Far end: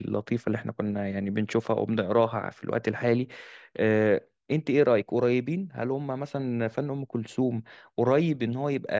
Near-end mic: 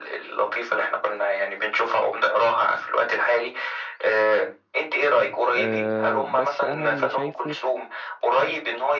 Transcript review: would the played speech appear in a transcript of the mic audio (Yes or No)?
Yes